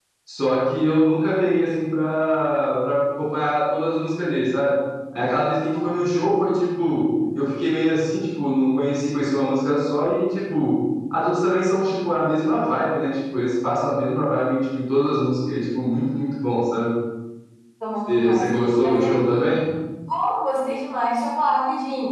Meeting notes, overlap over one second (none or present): present